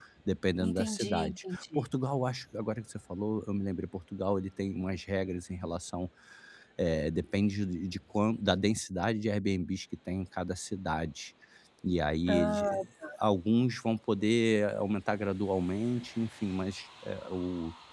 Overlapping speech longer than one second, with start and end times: 0.6-1.9

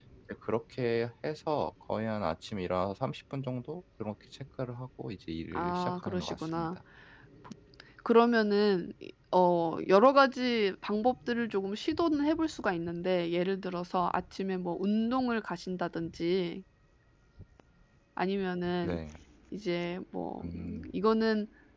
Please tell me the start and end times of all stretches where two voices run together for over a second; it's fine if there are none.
5.5-6.8

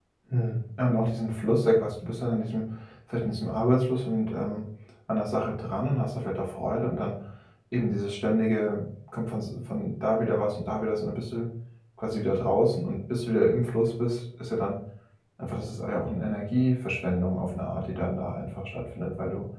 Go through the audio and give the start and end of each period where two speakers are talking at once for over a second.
none

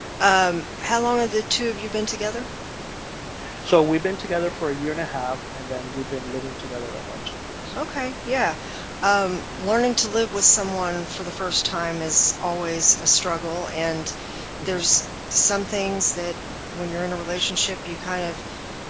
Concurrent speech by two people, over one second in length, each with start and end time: none

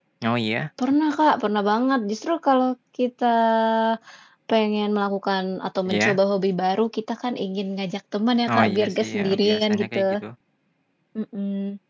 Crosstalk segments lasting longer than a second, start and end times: 8.5-10.0

